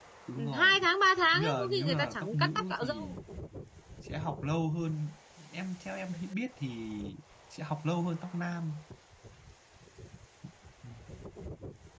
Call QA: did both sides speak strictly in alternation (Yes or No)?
No